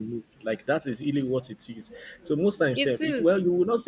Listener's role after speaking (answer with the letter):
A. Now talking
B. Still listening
B